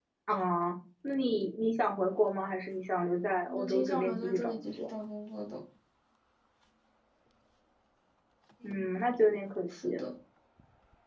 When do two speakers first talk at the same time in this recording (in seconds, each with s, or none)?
3.6 s